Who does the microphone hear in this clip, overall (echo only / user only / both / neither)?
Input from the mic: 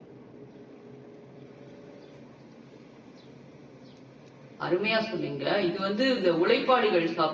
user only